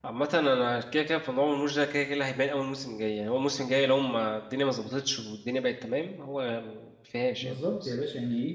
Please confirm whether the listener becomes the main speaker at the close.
Yes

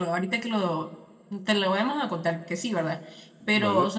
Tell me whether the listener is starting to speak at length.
No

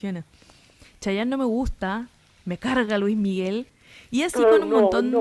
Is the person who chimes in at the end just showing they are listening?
No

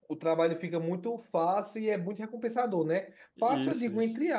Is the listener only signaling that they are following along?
Yes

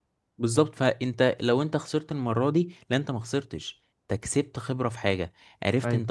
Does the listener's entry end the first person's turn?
No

